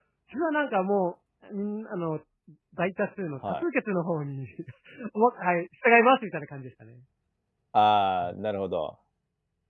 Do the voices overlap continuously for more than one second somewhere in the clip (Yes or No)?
No